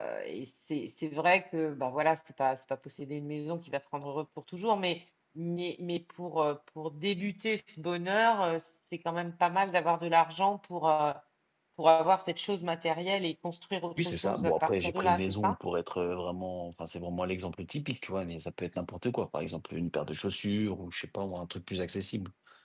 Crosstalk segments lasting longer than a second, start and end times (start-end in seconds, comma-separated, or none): 14.0-15.6